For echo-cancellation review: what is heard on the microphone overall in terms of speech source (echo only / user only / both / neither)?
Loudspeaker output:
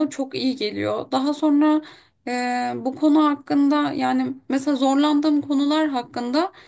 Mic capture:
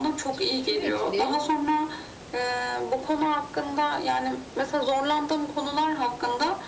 both